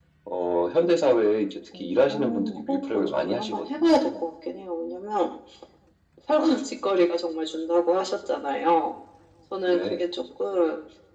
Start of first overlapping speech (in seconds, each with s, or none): 2.0 s